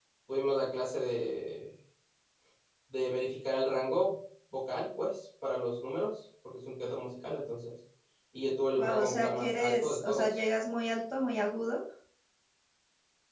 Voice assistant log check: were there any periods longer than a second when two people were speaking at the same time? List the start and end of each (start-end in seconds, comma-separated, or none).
8.8-10.4